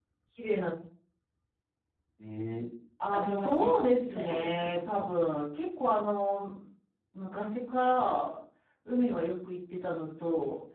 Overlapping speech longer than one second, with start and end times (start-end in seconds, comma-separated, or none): 3.1-5.1